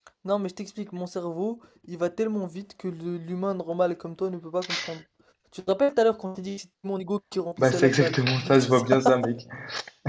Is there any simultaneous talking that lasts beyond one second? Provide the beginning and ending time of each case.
7.6-9.2

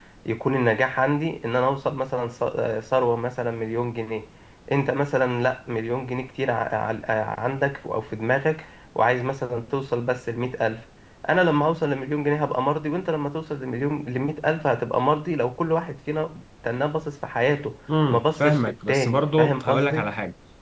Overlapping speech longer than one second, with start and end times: 18.1-20.1

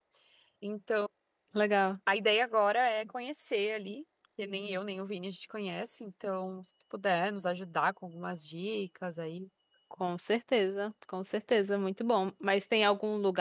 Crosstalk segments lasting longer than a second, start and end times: none

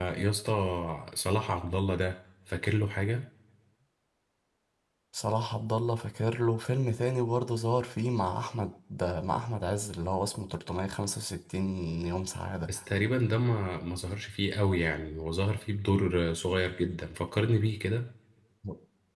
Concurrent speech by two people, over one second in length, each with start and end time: none

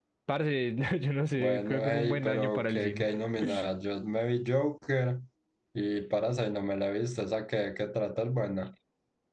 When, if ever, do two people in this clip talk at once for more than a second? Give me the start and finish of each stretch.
1.4-3.1

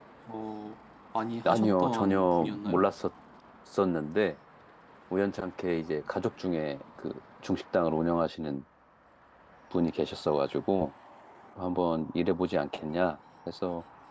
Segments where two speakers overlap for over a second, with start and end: 1.4-2.9

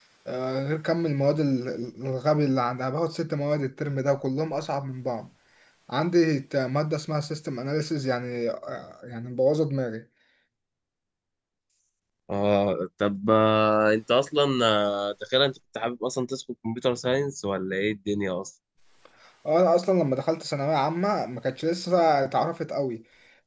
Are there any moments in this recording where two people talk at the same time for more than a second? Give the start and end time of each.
none

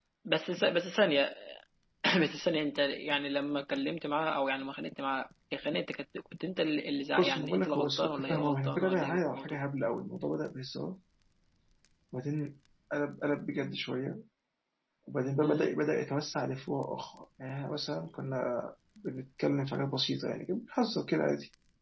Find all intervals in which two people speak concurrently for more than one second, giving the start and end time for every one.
7.2-9.6

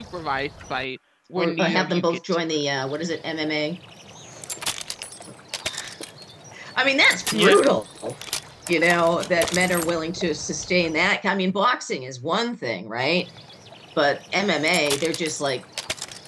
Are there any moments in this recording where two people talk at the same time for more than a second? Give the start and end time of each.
1.4-2.6

